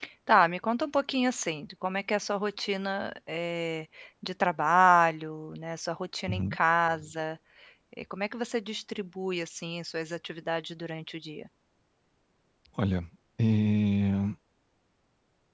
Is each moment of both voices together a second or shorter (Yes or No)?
Yes